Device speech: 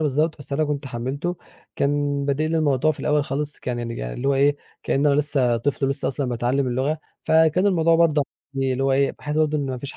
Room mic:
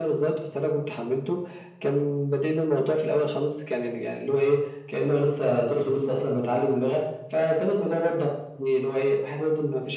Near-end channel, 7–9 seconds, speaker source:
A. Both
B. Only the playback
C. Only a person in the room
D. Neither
B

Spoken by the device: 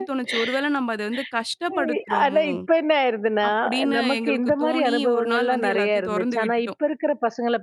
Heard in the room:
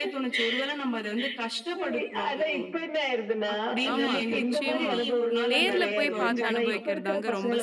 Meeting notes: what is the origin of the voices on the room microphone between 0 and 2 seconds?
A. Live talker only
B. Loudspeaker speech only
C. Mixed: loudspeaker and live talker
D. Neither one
B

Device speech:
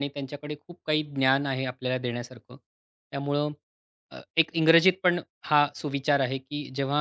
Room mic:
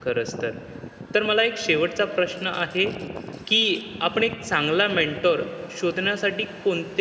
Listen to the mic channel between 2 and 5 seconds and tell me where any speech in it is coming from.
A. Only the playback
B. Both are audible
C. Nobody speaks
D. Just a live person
D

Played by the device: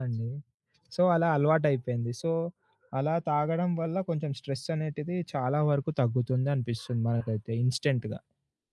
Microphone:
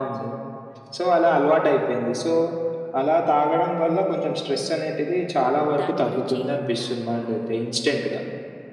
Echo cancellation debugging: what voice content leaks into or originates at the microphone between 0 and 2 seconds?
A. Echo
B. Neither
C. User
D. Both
A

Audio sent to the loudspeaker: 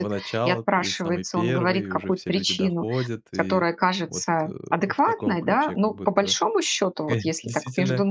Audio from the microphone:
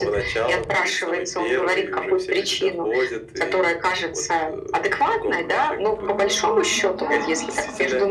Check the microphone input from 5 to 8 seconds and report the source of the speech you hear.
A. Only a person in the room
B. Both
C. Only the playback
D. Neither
B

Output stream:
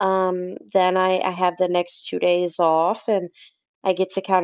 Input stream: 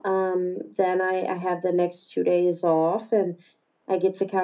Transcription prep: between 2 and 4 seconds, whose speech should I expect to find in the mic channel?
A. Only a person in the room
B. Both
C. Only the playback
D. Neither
C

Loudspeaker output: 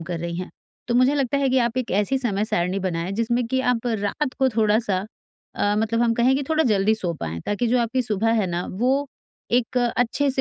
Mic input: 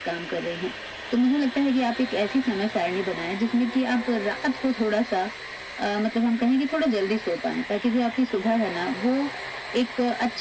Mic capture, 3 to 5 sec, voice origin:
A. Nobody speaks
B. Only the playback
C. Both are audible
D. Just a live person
B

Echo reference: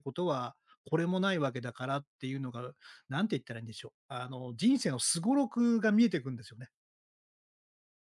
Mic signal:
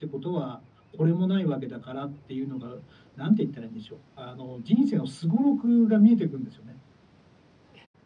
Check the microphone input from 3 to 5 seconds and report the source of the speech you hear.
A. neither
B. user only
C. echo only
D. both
C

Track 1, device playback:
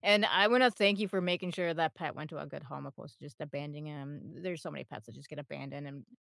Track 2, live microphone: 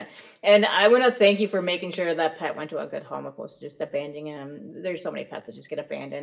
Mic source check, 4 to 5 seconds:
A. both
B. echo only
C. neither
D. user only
B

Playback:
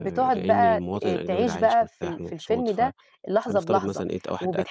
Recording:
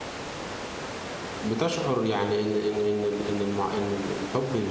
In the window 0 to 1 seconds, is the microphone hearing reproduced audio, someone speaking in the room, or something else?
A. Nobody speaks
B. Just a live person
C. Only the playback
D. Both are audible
A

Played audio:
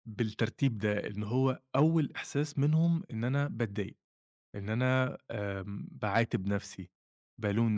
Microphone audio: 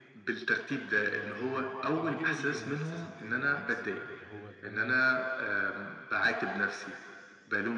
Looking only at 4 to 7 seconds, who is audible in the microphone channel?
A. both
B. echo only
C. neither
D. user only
A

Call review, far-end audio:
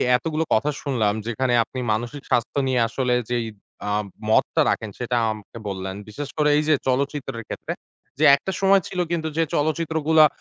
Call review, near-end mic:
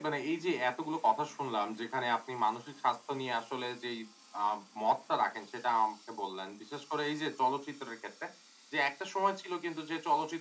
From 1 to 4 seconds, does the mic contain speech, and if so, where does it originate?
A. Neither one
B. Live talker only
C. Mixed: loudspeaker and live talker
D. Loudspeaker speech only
D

